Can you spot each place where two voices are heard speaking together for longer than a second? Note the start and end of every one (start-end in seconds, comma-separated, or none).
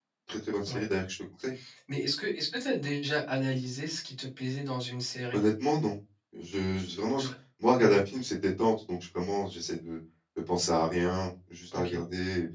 none